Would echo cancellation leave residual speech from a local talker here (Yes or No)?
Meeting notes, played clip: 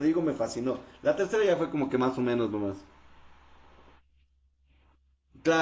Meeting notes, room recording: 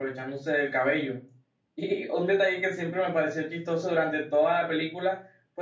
Yes